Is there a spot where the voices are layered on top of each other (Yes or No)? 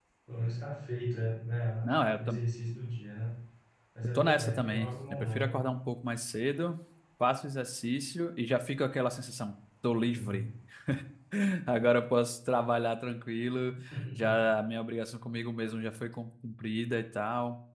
Yes